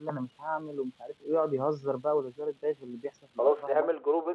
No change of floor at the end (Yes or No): No